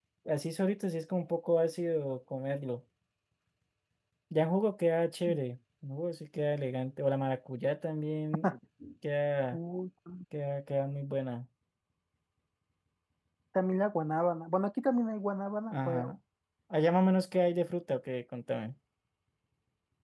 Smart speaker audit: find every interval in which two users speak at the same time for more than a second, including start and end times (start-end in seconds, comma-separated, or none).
none